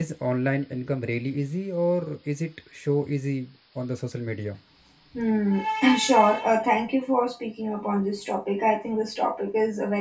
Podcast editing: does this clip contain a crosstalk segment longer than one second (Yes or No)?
No